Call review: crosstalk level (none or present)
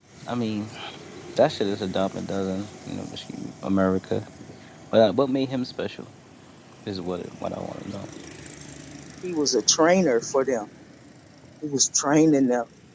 none